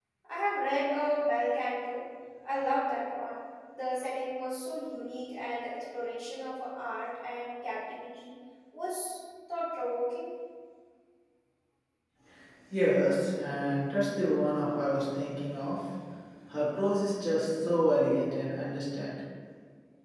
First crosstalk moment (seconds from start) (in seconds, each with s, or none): none